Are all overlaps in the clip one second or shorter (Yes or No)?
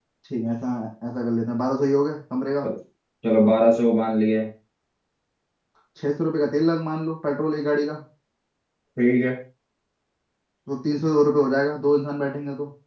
Yes